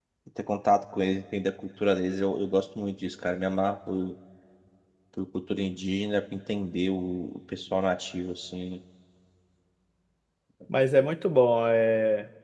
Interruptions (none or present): none